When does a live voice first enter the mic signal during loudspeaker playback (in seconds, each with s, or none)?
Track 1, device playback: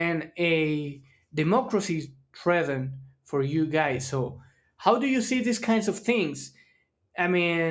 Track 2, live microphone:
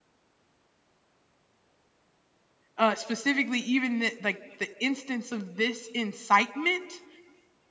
2.8 s